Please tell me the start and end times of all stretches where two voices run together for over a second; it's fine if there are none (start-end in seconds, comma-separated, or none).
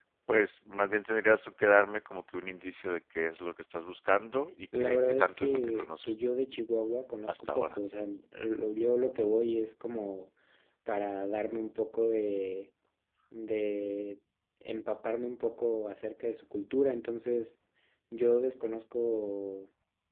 4.7-6.3